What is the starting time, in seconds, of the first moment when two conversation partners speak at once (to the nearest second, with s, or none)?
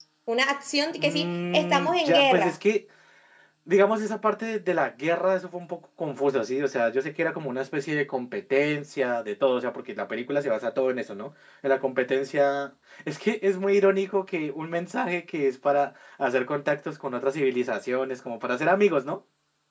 1 s